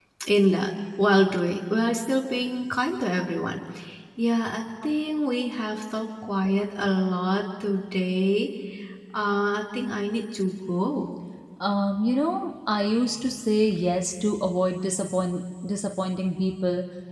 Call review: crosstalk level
none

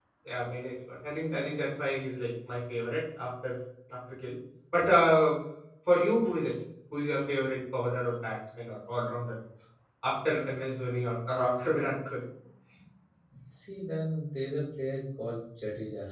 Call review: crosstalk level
none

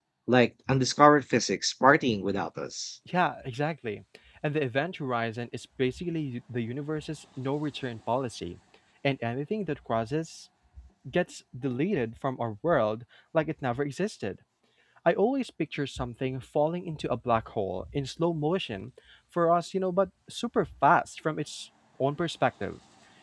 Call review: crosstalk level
none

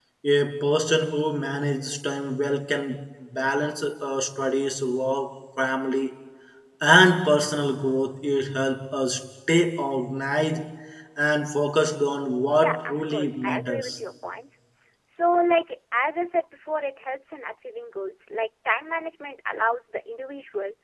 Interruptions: present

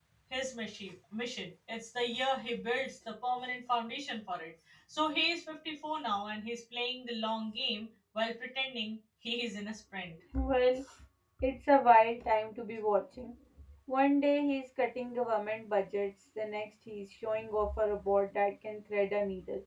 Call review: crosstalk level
none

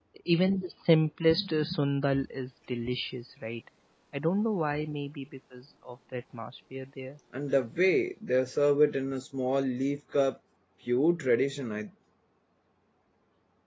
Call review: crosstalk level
none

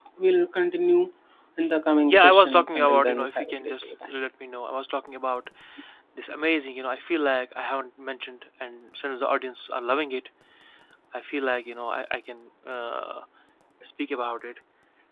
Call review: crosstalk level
present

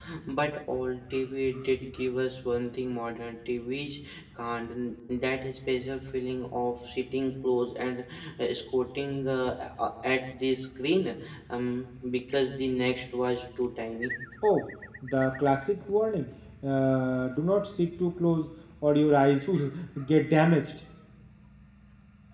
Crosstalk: none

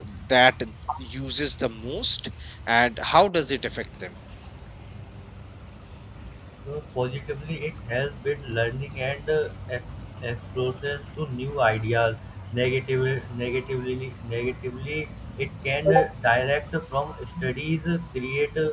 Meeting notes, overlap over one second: none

